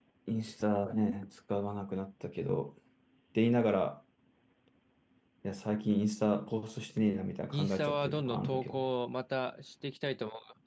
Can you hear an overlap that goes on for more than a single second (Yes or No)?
Yes